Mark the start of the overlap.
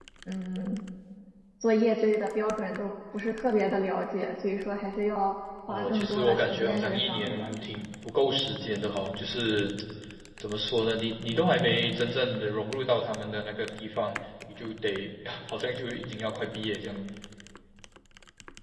5.7 s

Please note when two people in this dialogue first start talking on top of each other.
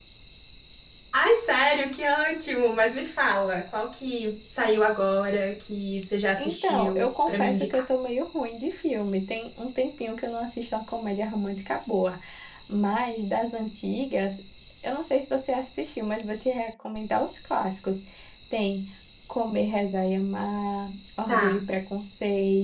6.4 s

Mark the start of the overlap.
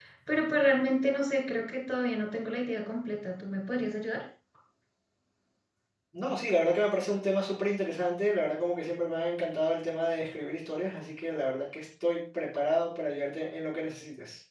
none

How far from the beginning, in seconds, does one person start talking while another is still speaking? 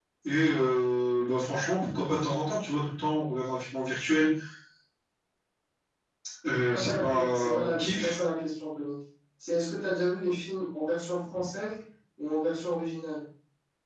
6.7 s

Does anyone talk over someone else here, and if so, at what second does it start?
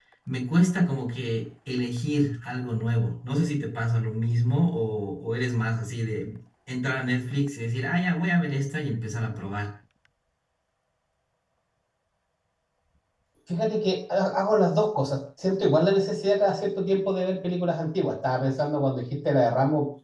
none

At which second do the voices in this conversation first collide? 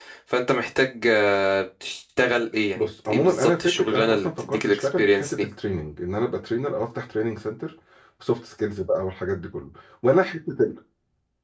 2.8 s

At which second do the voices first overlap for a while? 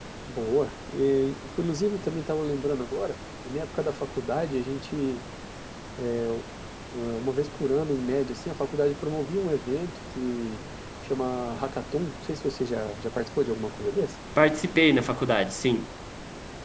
none

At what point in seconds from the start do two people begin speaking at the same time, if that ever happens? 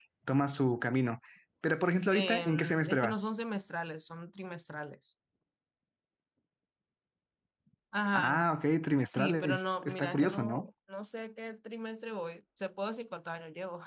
2.1 s

